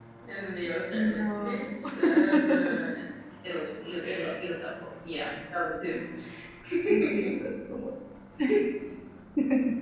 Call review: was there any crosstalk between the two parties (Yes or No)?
Yes